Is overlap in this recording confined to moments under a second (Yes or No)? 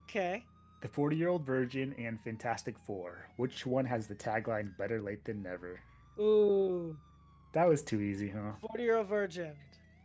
Yes